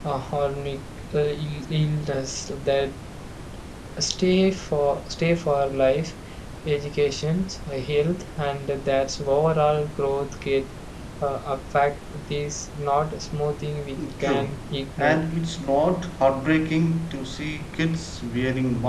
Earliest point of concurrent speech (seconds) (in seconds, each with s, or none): 14.0 s